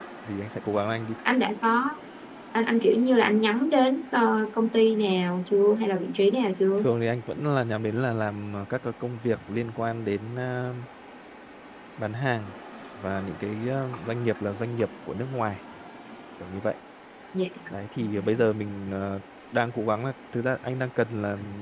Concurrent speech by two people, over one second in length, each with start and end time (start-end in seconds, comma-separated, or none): none